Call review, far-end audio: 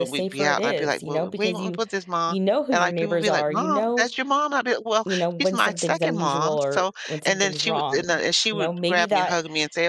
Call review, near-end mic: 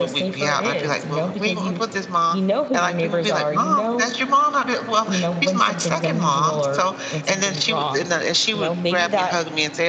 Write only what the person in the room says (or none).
none